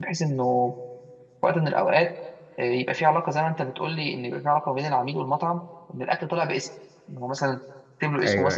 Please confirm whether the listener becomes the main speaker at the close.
No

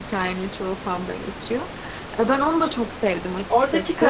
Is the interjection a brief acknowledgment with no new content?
No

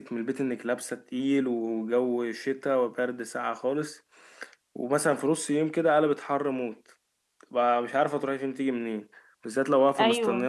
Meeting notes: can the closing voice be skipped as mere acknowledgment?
Yes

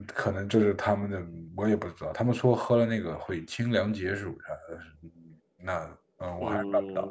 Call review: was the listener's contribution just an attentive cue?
No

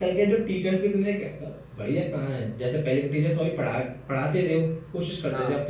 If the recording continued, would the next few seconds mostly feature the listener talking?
No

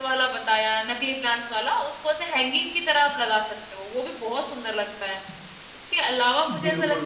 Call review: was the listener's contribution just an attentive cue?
Yes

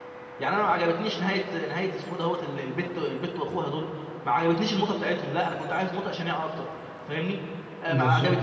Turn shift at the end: No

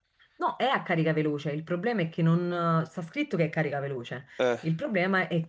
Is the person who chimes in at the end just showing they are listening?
Yes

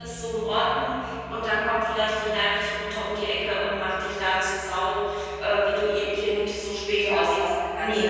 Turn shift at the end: Yes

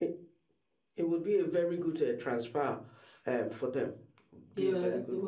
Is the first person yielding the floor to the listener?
Yes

